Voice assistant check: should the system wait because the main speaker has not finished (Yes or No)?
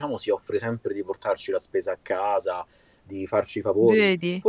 Yes